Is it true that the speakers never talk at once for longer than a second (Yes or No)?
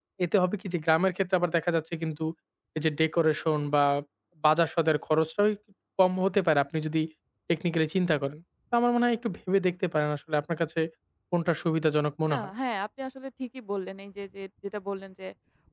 Yes